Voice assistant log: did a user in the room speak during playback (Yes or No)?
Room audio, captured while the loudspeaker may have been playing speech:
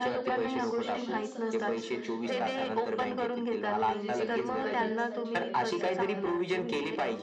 Yes